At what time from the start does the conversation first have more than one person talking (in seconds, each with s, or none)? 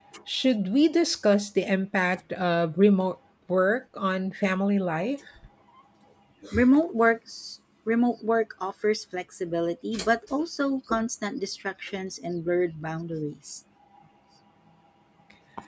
none